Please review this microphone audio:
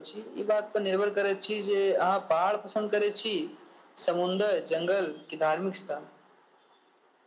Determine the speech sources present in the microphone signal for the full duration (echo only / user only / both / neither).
echo only